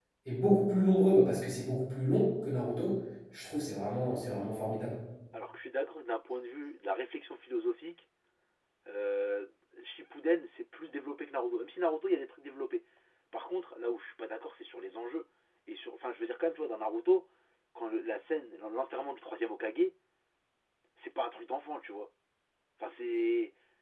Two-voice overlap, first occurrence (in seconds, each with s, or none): none